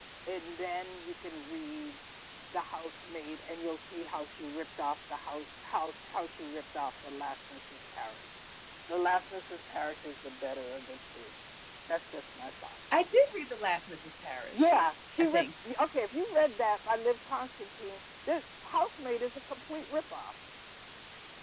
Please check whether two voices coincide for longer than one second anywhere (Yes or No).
No